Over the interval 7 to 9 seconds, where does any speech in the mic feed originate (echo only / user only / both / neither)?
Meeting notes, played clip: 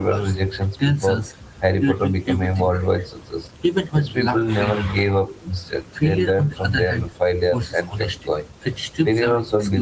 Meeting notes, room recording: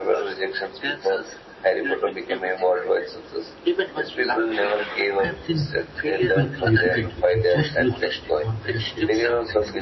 both